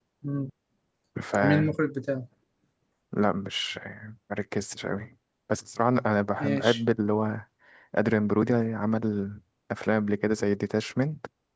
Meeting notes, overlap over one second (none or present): none